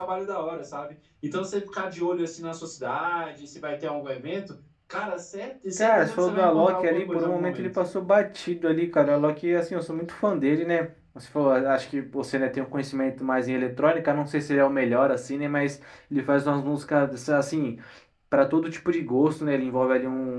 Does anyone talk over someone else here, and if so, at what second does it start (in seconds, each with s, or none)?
5.8 s